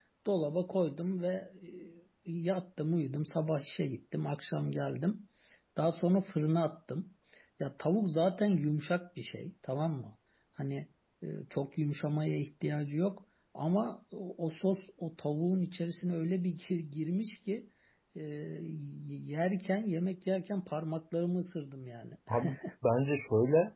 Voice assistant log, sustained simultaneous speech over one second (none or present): none